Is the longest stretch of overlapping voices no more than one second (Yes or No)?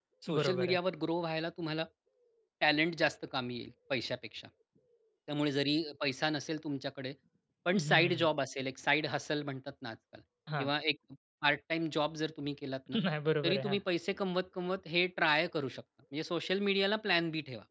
Yes